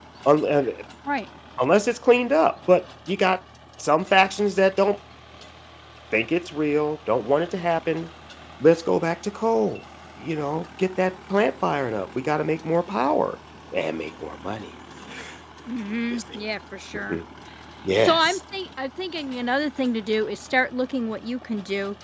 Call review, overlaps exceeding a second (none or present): none